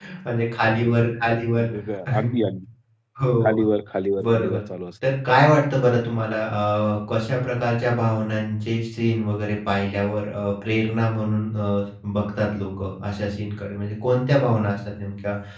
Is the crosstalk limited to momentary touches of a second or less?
Yes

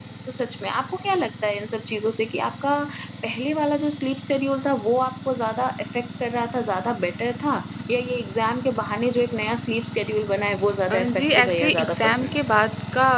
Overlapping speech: Yes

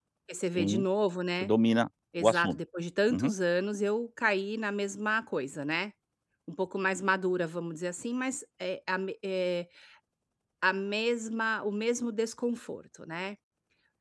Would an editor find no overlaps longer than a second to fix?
Yes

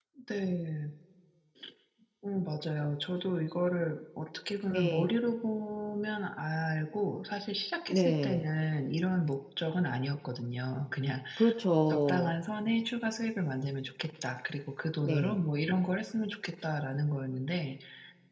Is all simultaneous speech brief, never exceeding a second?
Yes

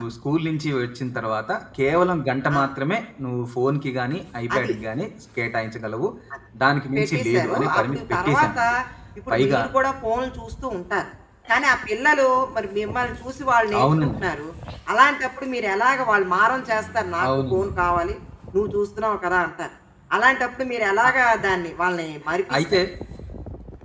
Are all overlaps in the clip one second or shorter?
No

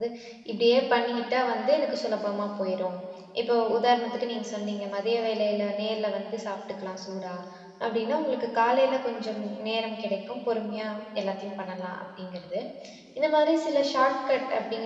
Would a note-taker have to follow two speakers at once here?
No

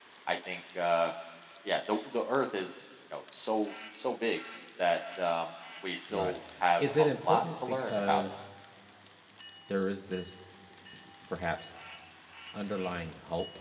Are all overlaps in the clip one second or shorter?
No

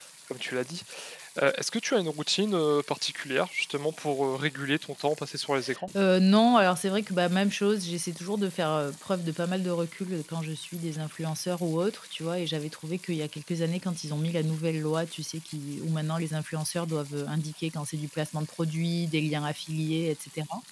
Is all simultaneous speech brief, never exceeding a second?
Yes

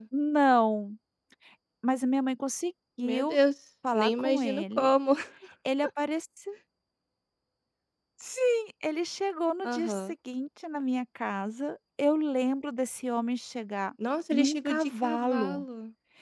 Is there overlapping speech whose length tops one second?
Yes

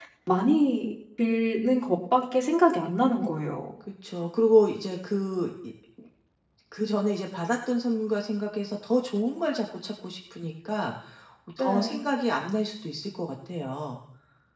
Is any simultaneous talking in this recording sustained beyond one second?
No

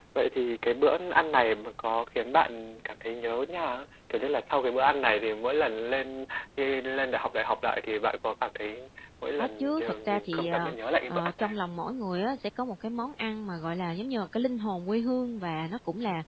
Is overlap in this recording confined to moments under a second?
No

